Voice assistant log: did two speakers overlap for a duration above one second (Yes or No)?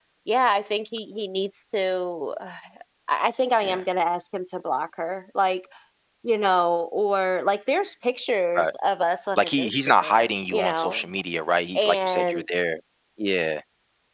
Yes